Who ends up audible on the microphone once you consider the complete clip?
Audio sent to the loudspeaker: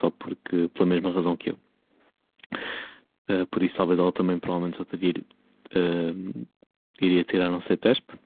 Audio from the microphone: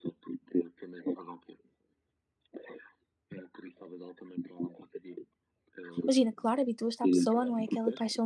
both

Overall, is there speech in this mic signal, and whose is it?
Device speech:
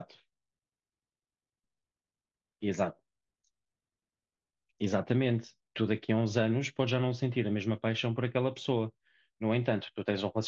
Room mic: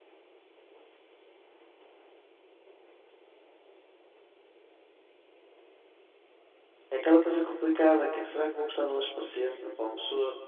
user only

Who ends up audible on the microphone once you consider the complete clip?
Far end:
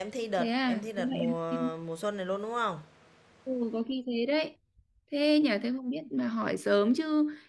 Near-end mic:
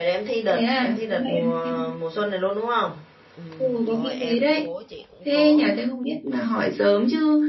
both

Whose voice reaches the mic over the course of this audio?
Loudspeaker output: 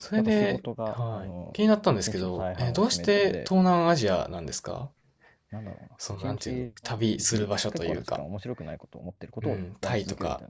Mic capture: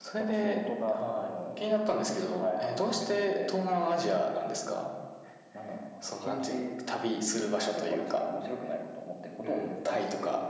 echo only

